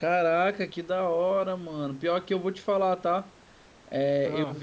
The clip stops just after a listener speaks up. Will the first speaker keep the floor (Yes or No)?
Yes